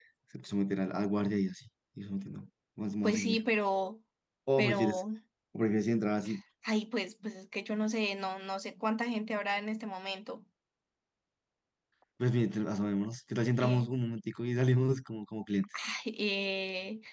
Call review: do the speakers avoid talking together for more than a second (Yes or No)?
Yes